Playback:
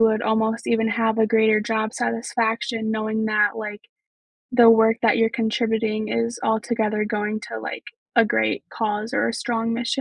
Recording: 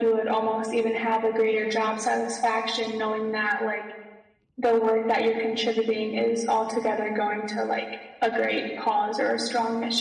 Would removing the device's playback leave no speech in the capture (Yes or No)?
Yes